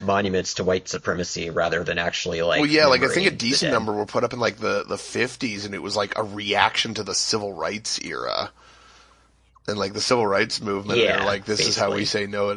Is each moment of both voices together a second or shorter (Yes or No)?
No